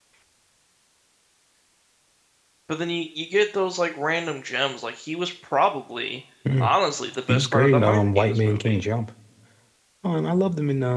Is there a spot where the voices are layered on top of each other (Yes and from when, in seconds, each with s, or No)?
Yes, from 7.3 s